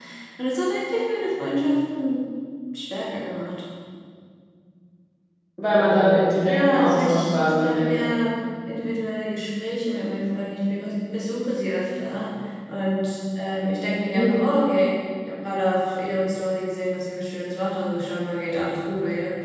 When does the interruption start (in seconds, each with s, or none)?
6.5 s